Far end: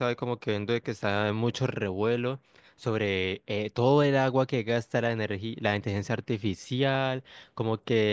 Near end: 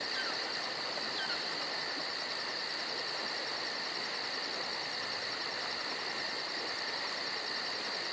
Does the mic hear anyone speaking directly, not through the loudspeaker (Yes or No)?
No